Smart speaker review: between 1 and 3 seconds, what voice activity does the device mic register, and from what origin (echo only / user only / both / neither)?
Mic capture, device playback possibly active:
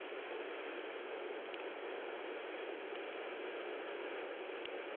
neither